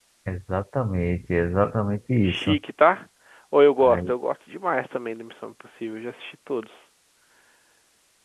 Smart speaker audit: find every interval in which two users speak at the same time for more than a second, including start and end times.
none

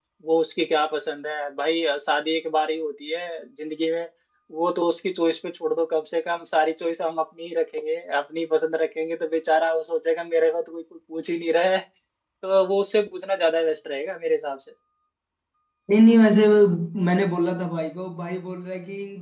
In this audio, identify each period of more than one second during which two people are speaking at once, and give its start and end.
none

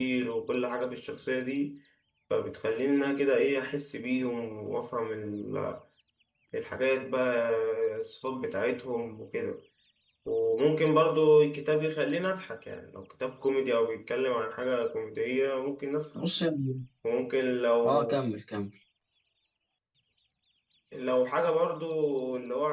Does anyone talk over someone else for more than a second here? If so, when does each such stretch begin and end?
none

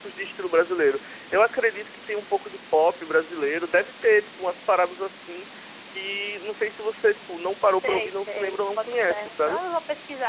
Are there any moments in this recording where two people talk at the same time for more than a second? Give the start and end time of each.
7.7-9.6

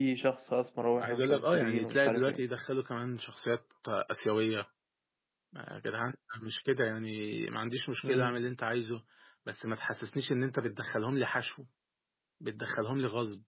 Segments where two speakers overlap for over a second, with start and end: 1.0-2.4

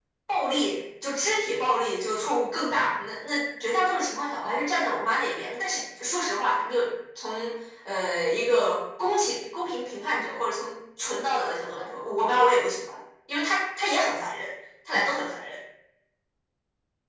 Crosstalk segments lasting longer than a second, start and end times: none

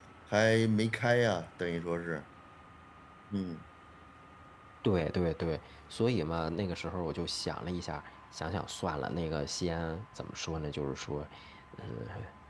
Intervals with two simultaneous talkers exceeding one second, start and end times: none

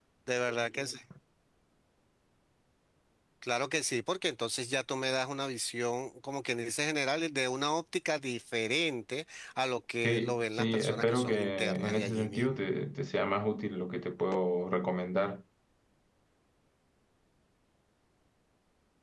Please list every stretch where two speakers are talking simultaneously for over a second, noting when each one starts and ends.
10.0-12.6

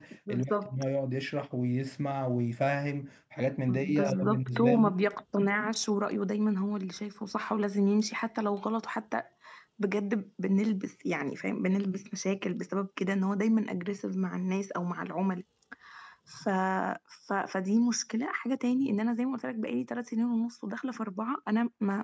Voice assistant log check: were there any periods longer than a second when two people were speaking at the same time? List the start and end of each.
3.7-4.9

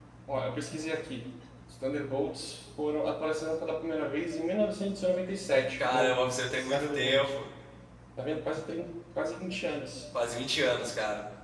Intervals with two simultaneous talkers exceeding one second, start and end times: 5.8-7.3

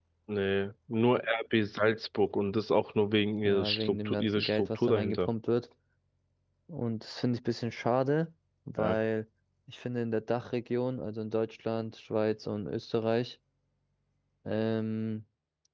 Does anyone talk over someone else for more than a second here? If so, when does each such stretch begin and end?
3.4-5.3

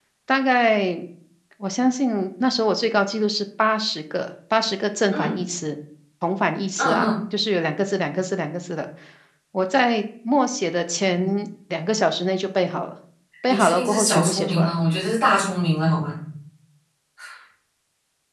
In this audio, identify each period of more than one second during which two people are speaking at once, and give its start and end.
13.5-14.8

